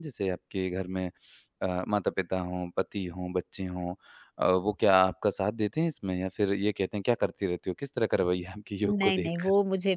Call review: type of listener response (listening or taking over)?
taking over